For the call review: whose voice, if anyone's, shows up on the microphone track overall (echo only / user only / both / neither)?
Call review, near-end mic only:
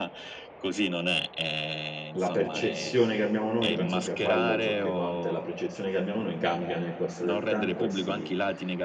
both